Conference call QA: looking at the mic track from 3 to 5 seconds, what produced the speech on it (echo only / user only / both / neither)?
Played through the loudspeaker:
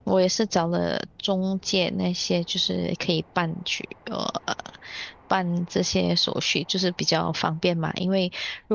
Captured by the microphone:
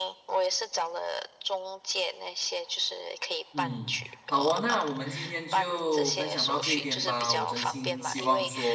both